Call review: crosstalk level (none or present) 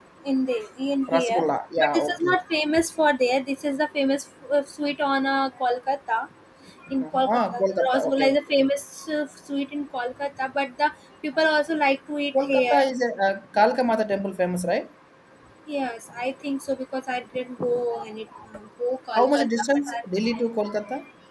present